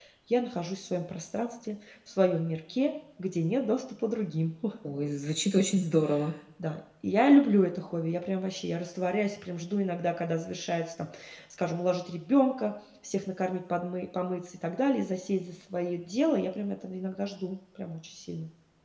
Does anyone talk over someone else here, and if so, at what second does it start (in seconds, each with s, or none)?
none